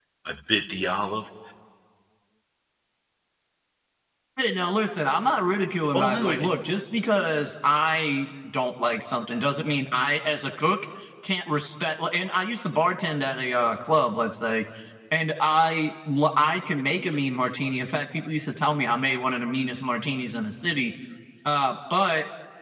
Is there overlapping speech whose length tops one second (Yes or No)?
No